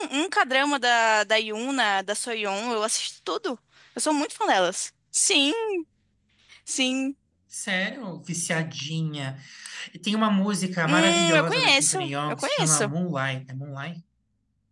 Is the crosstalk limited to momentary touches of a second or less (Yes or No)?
No